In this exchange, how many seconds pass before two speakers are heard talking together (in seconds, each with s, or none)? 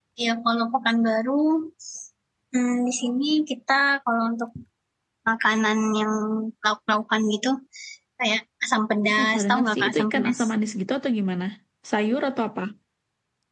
9.1 s